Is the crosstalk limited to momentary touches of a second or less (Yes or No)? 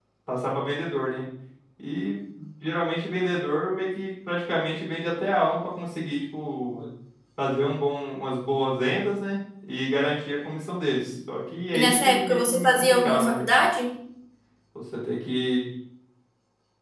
No